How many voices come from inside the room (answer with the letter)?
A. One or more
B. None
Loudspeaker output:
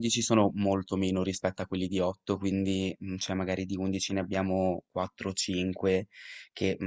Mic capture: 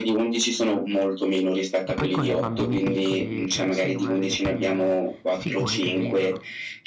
A